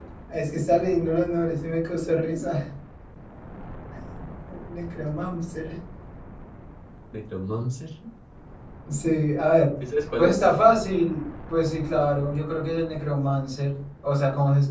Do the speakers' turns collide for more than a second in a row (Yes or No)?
No